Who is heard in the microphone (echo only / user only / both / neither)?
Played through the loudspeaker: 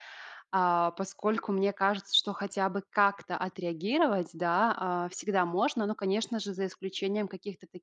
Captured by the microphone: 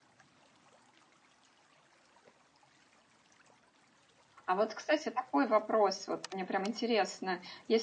user only